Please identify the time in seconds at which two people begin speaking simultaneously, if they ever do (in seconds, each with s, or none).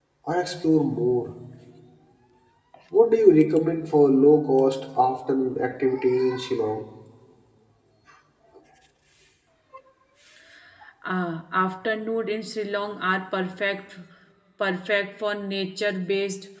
none